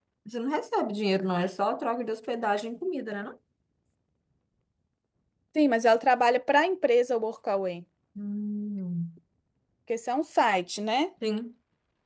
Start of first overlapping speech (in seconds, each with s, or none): none